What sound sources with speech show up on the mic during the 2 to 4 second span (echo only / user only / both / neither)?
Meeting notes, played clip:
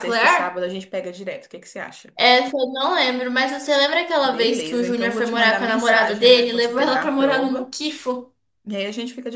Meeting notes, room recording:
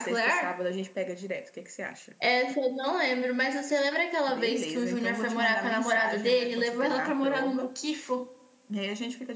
echo only